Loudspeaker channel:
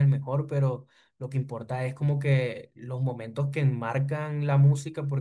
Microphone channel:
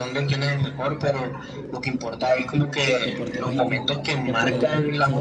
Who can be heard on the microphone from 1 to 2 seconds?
echo only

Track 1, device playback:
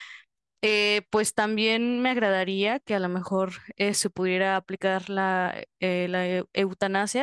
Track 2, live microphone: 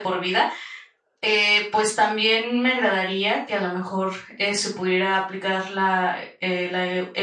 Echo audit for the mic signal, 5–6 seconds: echo only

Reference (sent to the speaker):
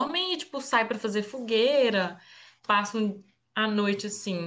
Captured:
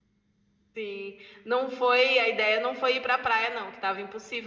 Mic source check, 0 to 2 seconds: user only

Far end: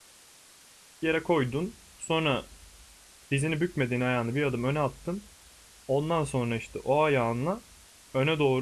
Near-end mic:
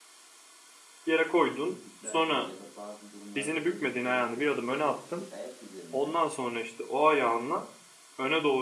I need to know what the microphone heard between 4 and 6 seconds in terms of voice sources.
both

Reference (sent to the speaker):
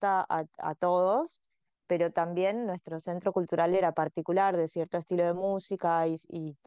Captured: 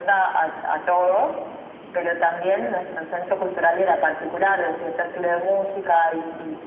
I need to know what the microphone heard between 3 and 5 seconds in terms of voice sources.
echo only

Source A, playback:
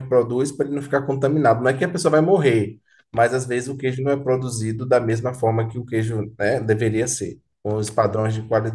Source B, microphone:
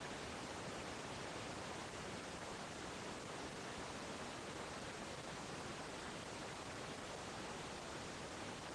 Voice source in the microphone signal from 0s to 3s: neither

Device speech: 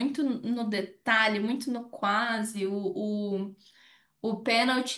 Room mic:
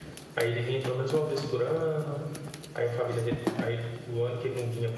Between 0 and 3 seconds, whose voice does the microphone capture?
user only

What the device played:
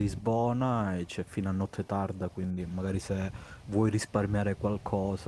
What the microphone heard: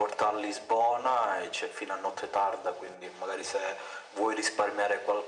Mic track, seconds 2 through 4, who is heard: echo only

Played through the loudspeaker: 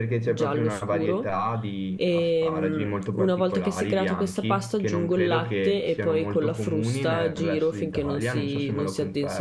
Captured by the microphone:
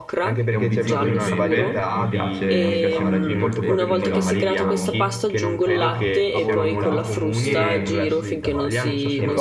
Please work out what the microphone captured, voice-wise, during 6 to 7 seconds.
both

